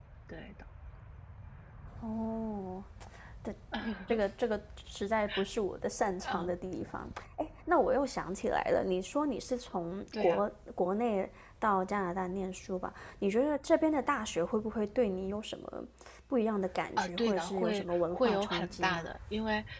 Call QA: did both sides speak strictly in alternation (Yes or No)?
No